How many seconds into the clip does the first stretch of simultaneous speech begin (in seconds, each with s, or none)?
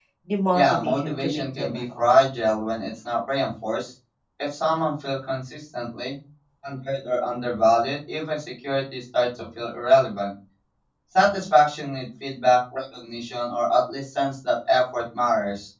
0.5 s